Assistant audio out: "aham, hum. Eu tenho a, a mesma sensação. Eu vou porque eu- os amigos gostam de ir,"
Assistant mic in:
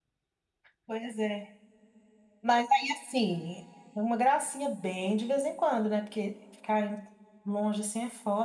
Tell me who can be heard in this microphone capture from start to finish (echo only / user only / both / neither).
user only